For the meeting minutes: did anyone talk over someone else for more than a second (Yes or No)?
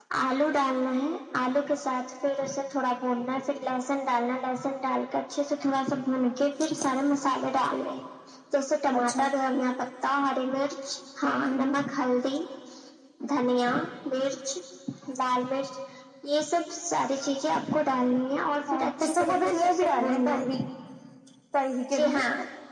Yes